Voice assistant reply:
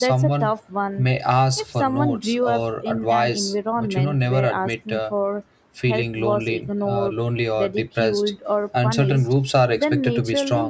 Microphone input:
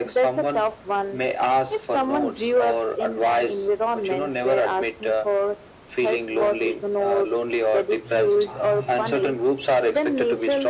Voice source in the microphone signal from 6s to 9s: both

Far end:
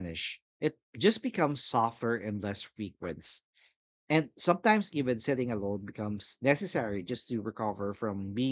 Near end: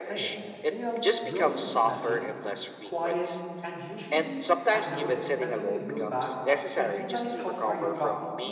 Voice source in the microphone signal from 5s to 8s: both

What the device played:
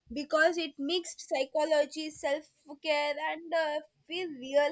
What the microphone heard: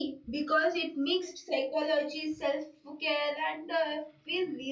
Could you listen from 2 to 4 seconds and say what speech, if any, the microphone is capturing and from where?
echo only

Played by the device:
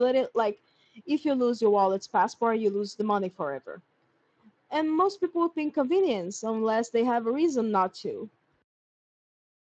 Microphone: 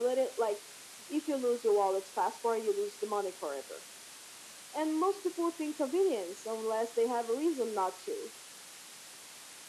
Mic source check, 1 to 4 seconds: echo only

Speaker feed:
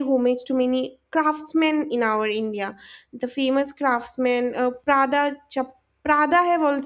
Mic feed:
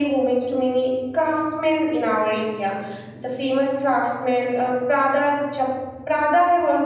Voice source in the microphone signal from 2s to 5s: echo only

